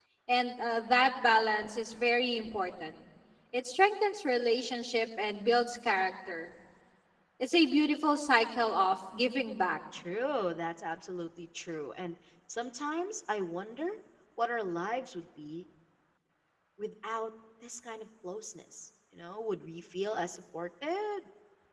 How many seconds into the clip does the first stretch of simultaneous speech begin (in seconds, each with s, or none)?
none